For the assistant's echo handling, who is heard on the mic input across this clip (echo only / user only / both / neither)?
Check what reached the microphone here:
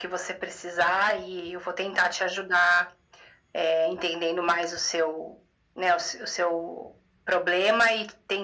echo only